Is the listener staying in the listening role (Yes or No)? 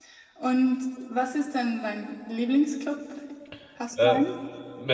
No